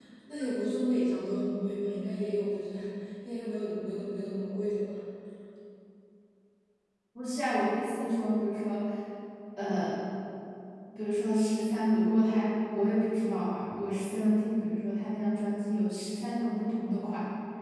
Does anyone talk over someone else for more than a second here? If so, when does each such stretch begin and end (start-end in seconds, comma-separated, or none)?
none